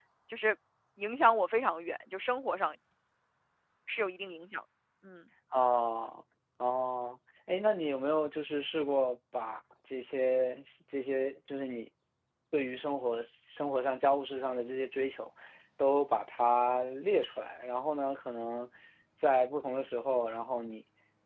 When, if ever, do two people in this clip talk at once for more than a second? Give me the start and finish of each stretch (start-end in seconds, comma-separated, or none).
none